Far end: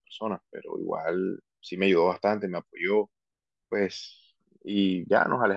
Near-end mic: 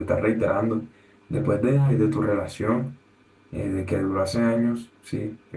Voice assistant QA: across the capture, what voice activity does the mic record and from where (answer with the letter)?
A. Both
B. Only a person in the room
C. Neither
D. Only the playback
B